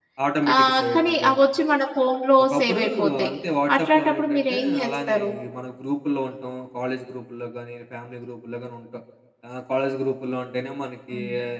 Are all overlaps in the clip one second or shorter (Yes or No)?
No